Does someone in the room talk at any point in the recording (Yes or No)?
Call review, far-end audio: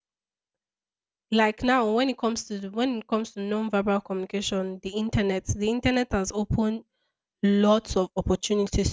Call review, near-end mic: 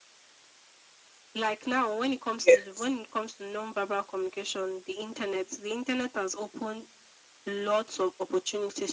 Yes